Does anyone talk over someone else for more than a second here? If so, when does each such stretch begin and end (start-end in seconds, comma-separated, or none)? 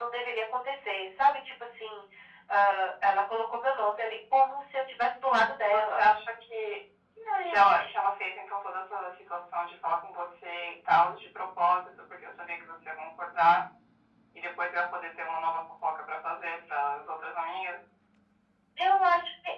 none